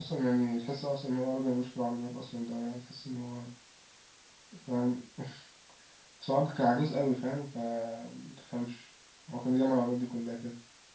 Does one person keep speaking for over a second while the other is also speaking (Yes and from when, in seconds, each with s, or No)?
No